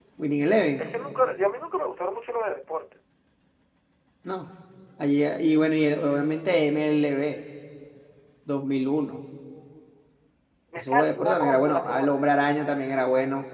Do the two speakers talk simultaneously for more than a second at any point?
Yes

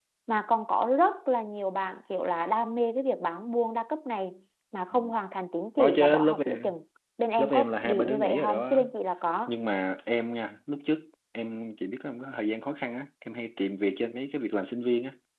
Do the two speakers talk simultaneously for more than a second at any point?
Yes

